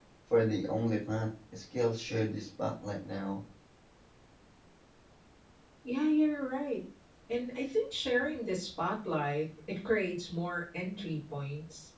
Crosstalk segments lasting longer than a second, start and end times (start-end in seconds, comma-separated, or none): none